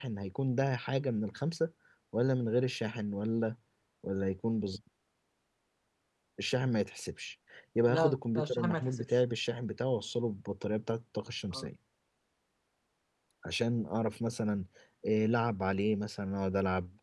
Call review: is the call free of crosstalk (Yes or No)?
No